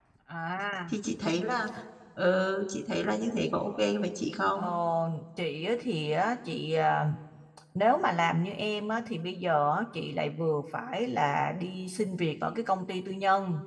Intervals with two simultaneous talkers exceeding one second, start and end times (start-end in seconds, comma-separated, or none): none